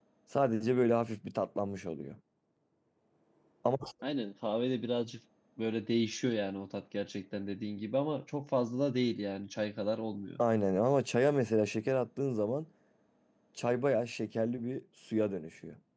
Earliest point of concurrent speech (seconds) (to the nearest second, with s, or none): none